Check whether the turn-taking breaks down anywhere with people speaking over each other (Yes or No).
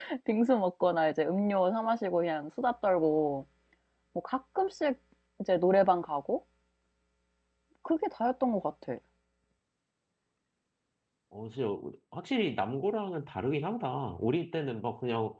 No